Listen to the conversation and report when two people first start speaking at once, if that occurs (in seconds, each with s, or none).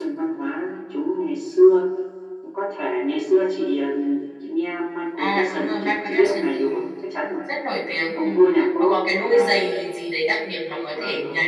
5.2 s